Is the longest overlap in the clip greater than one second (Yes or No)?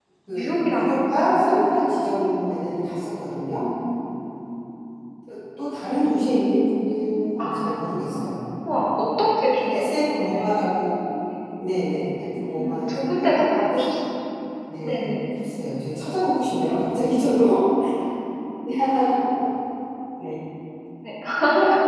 Yes